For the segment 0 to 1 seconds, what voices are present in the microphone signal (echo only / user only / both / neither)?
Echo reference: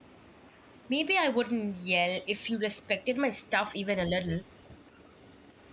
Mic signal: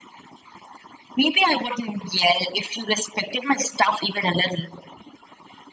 neither